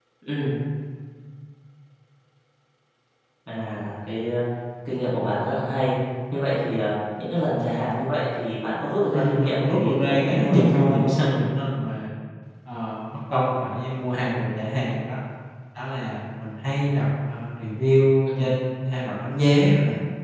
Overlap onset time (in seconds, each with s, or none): 9.1 s